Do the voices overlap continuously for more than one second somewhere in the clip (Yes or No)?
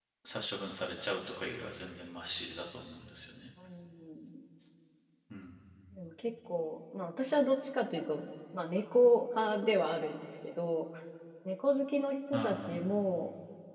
No